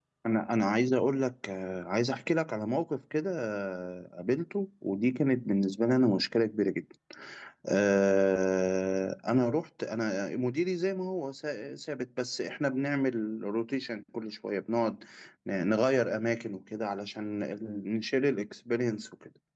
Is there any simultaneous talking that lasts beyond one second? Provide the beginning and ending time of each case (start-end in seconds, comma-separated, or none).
none